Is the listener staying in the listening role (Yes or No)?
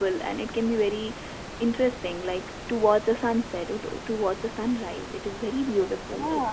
No